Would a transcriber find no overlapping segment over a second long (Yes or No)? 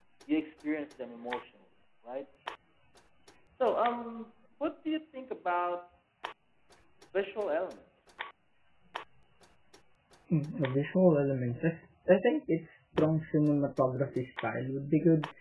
Yes